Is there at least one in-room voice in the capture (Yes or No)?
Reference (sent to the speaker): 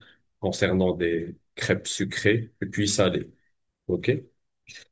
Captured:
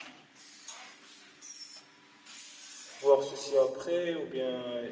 Yes